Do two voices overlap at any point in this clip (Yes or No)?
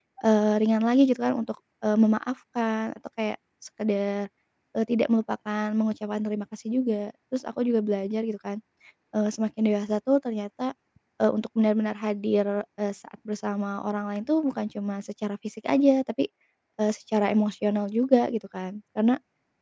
No